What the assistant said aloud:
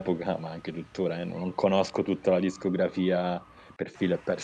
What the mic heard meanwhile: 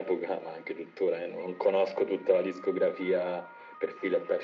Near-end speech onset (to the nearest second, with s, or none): none